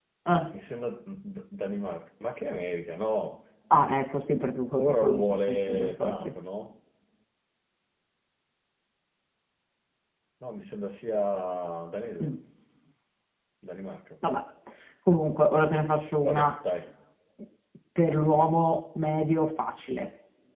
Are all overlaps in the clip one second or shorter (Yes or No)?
No